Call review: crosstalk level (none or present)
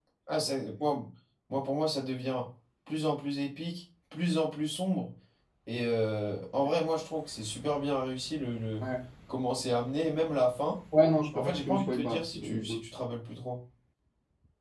present